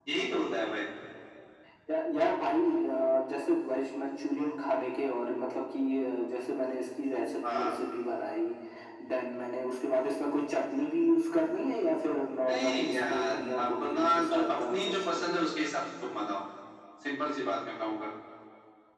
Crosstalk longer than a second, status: present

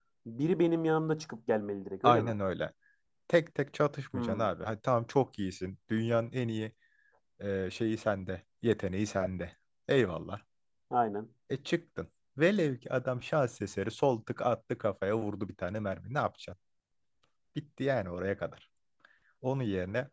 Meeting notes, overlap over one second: none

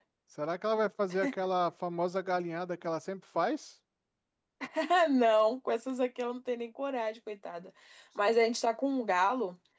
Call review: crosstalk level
none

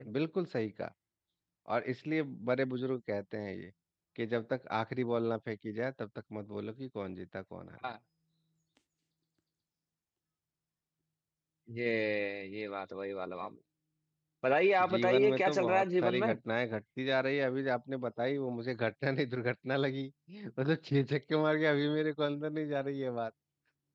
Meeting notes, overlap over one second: present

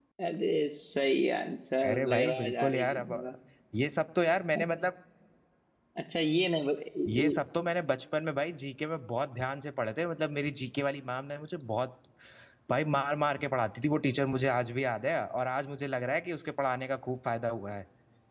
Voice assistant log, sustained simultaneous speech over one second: present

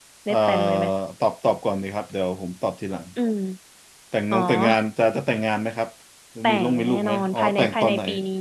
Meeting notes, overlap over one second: present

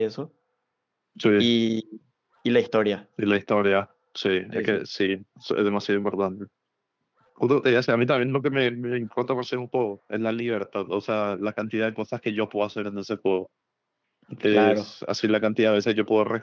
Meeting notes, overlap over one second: none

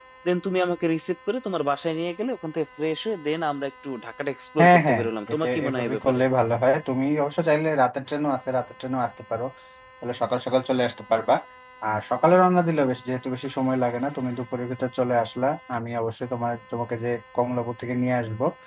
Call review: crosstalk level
present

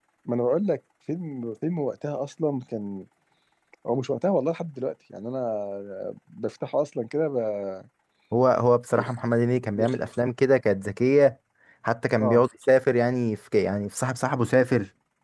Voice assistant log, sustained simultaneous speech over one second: none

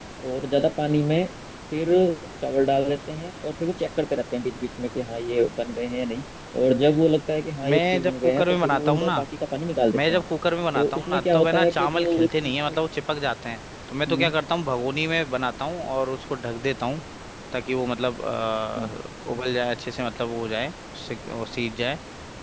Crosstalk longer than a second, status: present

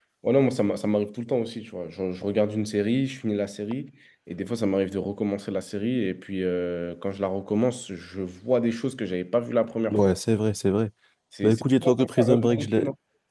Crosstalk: present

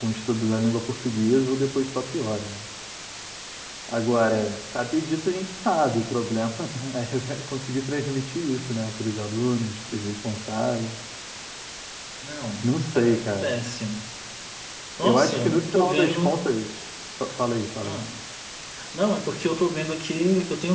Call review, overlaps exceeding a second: present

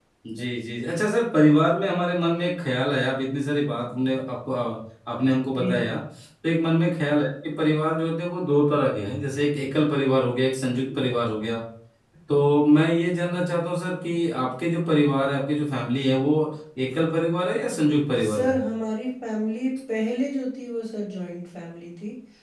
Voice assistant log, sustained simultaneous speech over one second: none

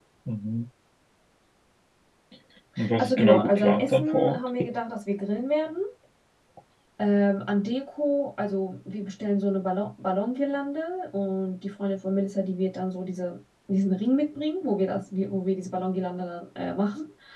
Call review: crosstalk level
present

